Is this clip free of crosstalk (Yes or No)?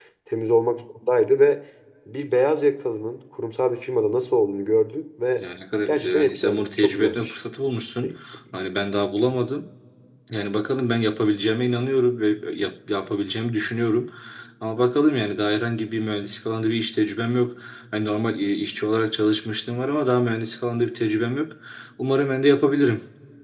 No